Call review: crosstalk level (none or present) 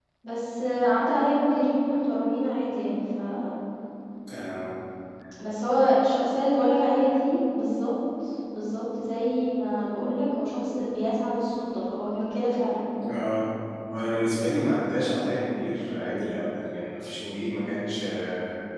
none